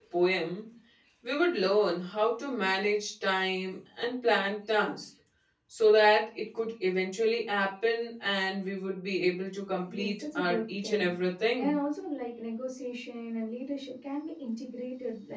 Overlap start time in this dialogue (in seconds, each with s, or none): 9.9 s